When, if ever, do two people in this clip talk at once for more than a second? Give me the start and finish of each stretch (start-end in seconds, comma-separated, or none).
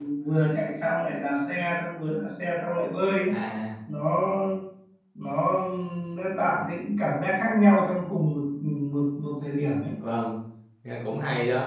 none